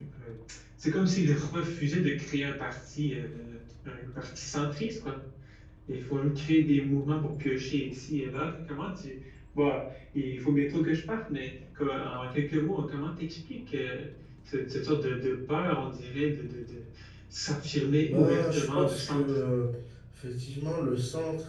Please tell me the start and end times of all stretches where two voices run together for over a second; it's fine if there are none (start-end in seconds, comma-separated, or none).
18.1-19.4